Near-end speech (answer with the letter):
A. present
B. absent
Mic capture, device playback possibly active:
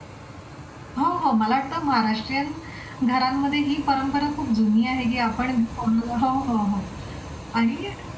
A